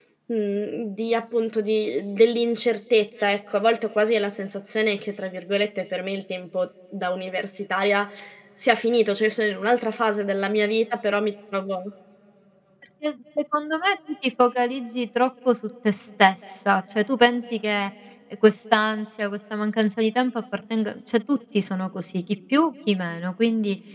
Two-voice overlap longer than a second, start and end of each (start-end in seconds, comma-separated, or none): none